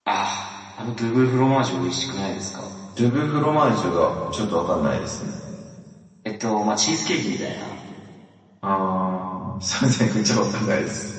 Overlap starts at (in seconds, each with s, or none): none